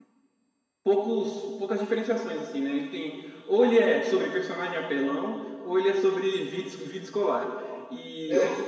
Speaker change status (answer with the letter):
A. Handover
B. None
B